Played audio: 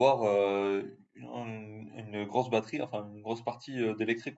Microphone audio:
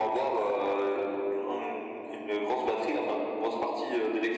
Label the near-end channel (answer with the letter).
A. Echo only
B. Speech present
A